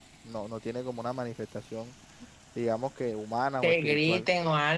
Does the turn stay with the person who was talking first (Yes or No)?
No